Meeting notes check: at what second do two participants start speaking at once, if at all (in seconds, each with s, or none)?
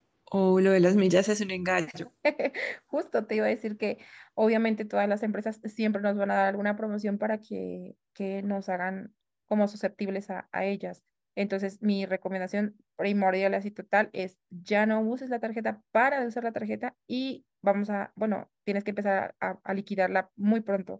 none